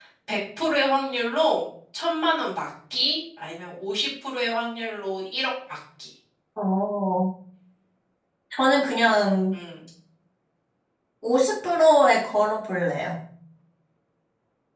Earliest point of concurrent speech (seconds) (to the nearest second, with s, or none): none